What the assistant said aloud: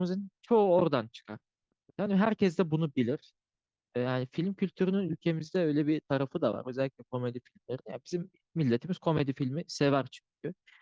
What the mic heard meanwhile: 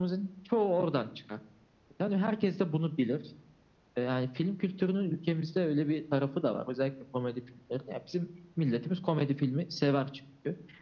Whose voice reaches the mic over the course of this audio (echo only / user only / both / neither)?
echo only